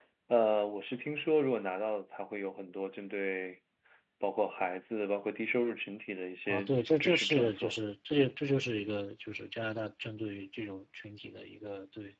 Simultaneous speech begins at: 6.5 s

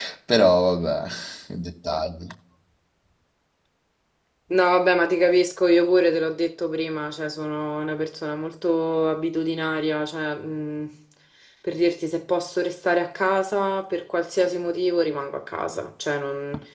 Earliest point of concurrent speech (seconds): none

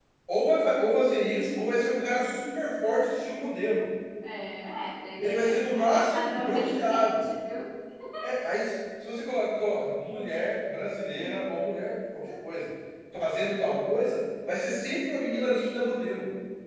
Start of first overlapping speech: 5.2 s

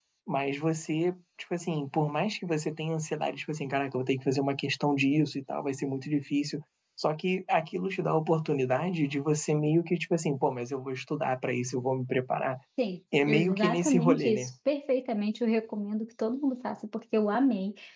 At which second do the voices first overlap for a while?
13.3 s

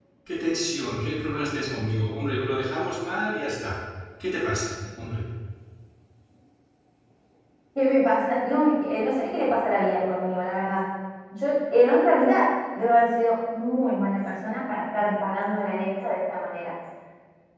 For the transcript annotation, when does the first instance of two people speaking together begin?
none

